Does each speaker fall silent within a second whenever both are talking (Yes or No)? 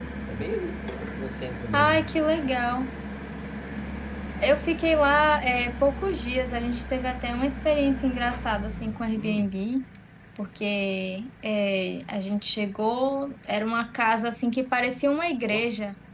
Yes